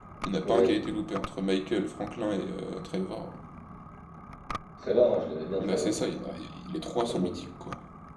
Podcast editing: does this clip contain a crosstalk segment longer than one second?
No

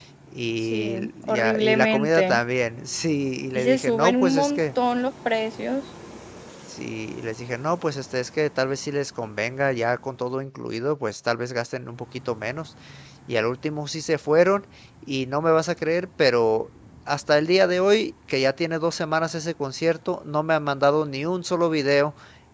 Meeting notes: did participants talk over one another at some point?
Yes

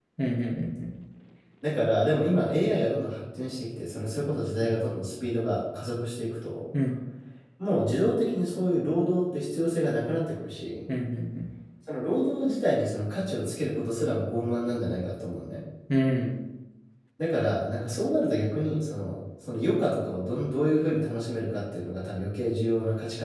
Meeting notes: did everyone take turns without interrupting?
Yes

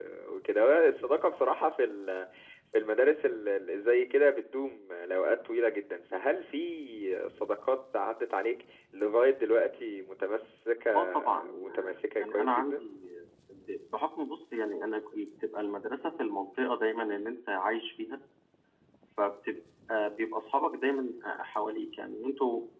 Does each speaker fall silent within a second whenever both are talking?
No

